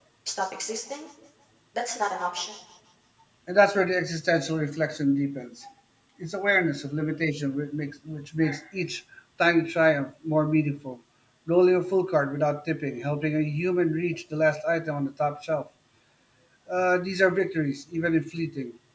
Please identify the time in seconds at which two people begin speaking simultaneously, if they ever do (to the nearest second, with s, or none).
none